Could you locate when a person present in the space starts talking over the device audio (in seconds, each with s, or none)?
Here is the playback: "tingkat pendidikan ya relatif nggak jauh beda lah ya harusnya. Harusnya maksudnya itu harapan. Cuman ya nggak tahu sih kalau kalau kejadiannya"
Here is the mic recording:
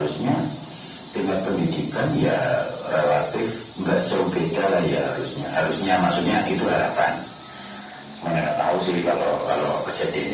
none